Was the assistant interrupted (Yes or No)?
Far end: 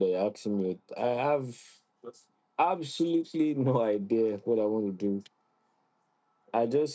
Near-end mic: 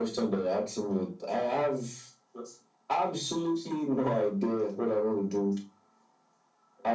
No